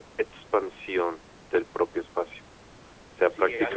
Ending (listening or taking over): taking over